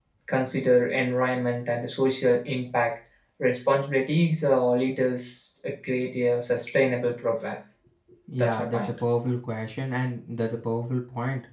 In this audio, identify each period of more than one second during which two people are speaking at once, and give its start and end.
none

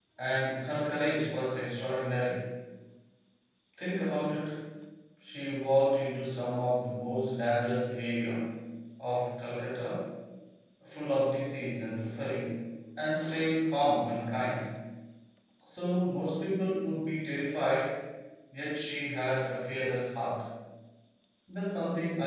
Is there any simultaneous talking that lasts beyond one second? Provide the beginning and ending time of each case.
none

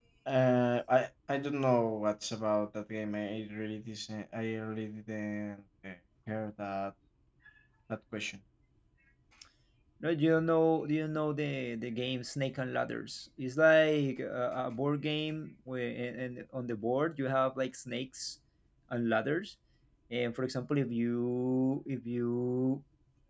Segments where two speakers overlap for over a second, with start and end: none

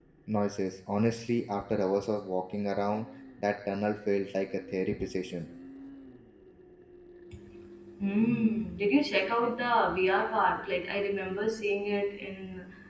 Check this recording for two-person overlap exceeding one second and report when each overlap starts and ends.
none

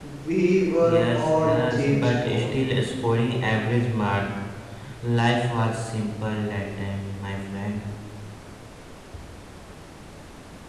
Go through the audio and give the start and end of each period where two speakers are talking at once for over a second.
0.9-2.5

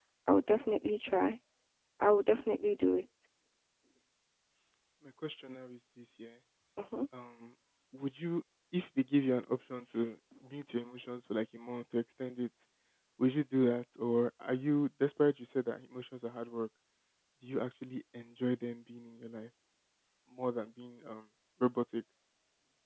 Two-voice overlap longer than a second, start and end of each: none

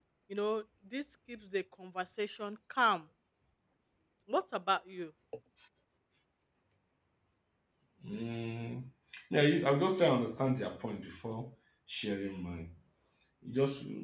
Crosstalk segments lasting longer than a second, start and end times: none

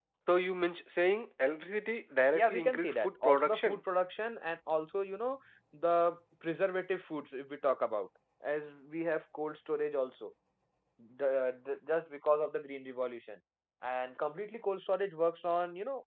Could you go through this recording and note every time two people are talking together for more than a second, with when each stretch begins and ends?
2.3-3.8

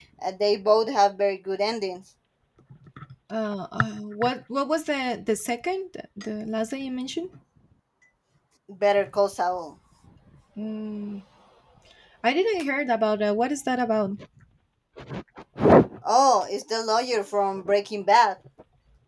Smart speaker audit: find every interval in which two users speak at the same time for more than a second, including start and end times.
none

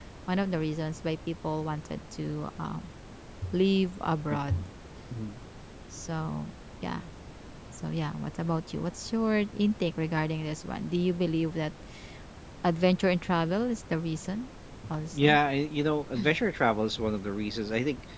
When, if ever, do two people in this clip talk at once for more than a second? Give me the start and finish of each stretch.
none

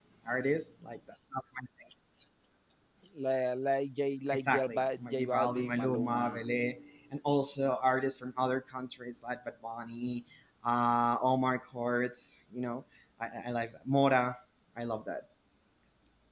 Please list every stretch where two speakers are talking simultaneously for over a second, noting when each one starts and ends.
4.3-6.2

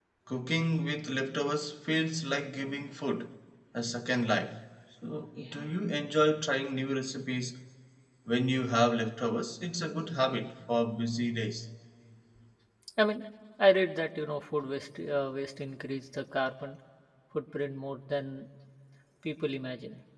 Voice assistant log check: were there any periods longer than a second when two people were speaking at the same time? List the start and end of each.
none

